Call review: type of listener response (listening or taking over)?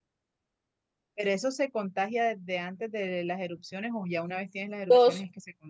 taking over